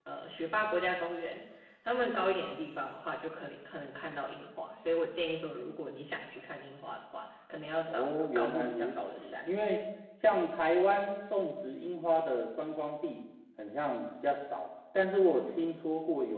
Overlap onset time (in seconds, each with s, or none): 7.9 s